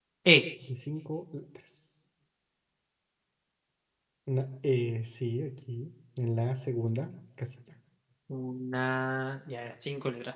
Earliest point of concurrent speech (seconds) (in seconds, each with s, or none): none